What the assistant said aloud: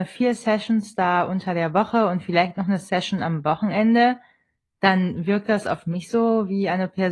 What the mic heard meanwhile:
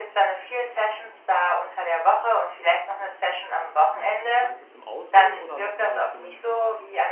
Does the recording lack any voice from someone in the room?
No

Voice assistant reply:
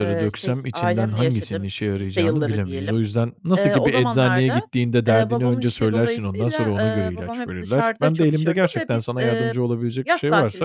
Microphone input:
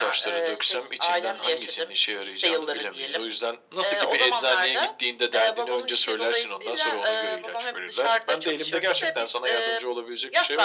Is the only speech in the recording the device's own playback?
Yes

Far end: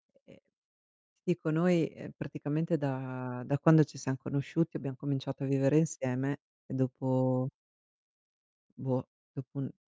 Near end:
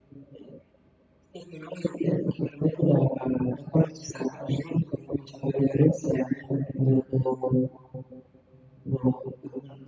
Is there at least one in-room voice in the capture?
No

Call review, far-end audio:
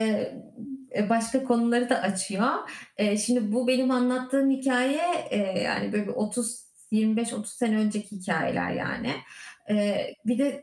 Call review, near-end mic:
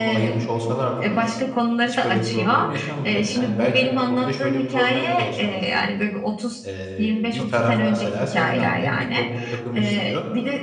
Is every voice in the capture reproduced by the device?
No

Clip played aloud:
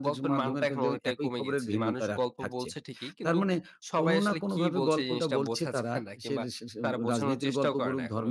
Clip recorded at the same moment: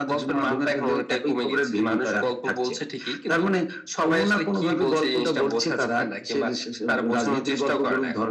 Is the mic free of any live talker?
Yes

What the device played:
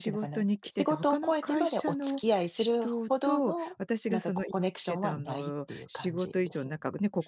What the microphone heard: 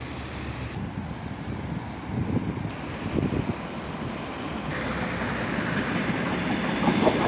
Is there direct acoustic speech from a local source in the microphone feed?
No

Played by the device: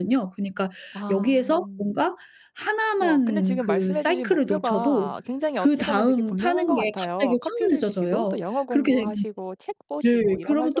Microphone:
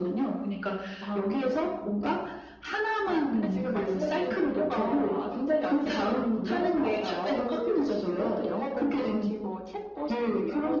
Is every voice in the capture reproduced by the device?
Yes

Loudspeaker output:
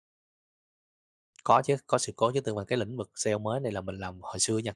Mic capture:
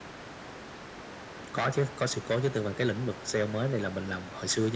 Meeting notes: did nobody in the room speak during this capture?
Yes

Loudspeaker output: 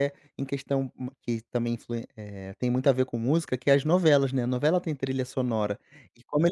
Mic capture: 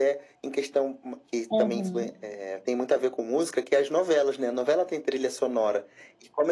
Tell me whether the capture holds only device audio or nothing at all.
No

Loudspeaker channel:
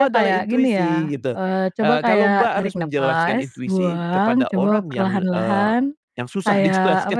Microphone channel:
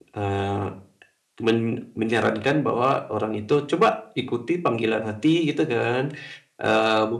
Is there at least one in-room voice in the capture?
Yes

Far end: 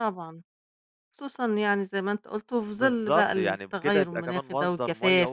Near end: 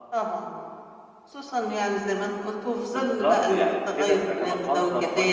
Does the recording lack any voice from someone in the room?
Yes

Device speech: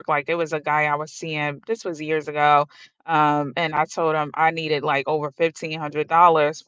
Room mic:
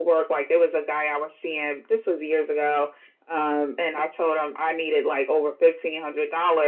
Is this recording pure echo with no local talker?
Yes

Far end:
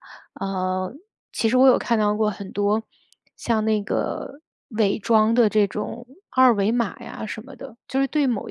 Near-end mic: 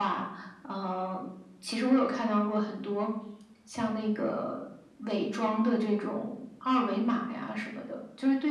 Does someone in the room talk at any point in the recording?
No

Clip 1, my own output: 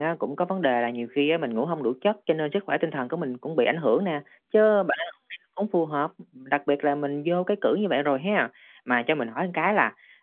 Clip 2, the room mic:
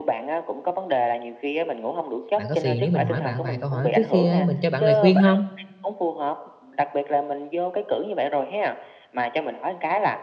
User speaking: Yes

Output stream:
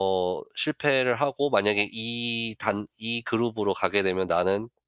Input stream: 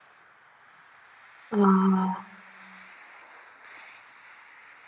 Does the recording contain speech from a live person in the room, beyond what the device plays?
Yes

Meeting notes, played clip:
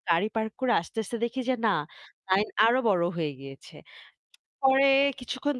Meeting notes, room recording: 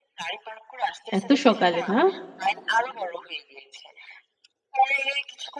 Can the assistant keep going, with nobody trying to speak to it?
No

